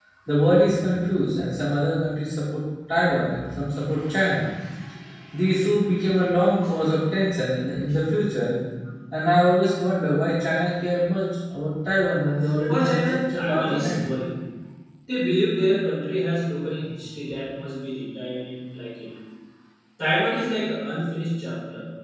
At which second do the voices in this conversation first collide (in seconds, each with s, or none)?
12.7 s